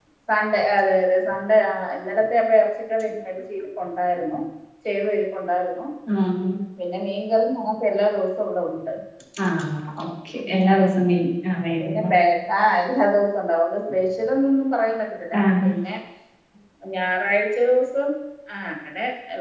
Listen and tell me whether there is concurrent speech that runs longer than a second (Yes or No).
No